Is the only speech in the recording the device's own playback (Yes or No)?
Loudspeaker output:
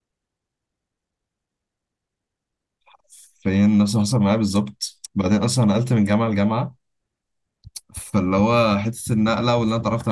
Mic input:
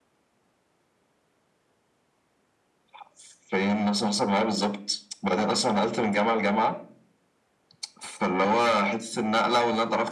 Yes